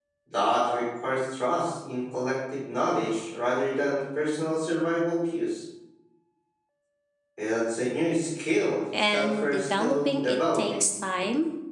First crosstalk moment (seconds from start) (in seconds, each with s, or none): 8.9 s